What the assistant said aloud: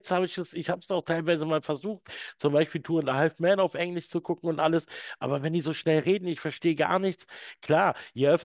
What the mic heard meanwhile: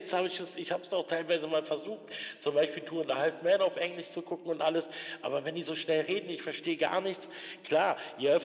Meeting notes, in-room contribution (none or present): none